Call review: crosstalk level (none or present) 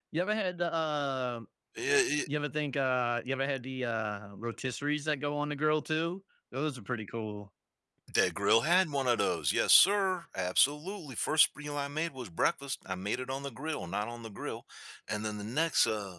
none